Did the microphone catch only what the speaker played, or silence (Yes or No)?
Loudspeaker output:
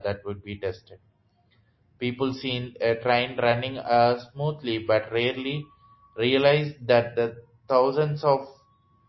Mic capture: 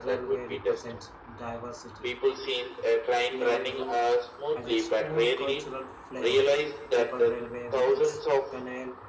No